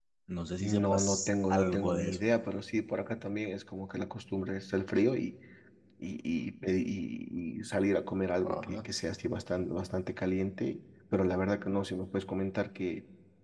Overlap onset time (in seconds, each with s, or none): 0.6 s